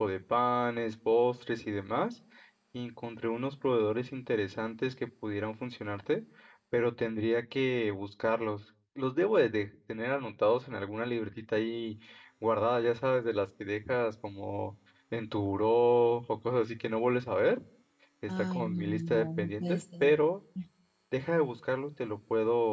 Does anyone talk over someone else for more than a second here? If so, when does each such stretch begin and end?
18.3-20.1

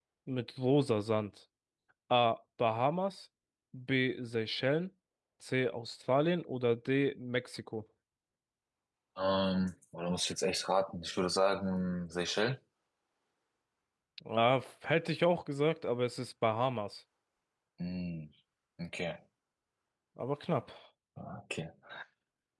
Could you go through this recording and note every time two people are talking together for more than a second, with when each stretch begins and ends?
none

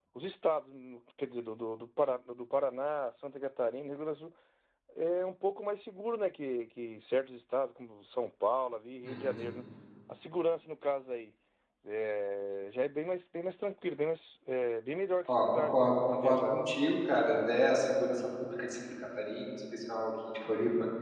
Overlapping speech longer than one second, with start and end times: 15.2-16.7

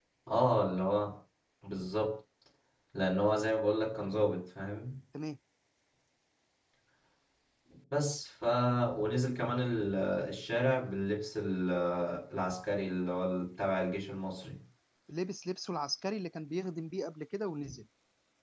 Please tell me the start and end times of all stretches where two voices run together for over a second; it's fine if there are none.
none

